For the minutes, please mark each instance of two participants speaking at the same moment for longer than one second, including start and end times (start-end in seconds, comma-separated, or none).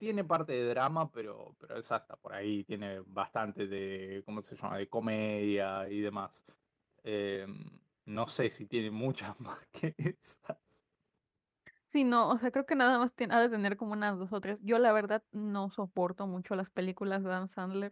none